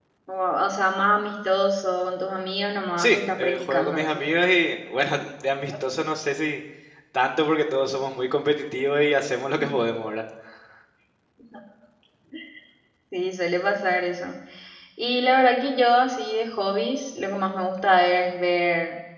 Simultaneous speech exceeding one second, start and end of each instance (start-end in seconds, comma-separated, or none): 3.0-4.2